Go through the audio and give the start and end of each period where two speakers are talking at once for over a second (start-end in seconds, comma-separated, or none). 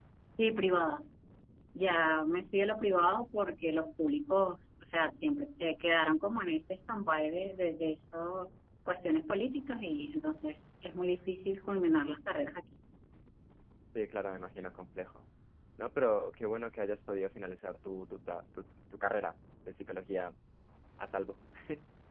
none